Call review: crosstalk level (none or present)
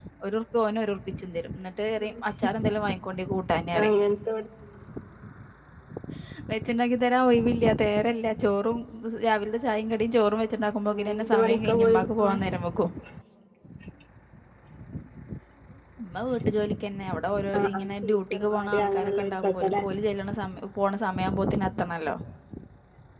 present